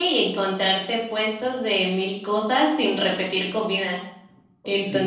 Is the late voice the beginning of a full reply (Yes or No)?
No